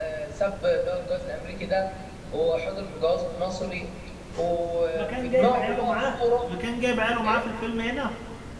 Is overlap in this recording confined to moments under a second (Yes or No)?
No